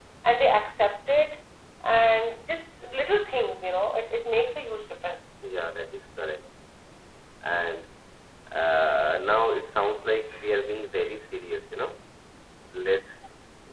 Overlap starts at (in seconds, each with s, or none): none